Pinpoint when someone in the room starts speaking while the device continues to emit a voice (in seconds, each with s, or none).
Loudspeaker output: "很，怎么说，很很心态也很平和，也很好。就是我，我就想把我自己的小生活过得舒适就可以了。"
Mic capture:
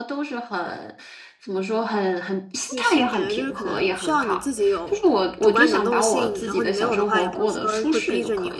2.7 s